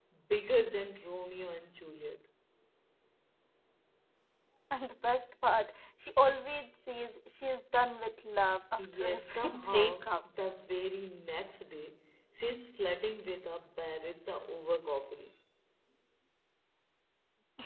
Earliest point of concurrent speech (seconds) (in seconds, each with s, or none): 8.8 s